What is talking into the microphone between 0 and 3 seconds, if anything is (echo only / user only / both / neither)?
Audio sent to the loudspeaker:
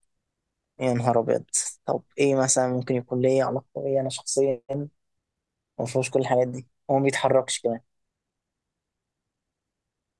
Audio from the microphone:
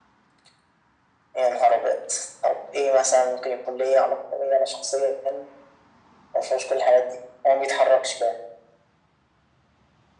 echo only